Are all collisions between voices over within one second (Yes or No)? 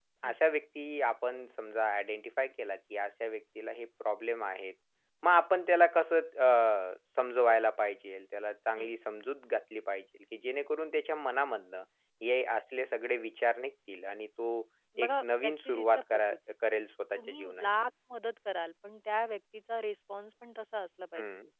No